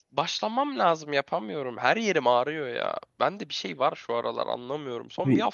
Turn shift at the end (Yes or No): No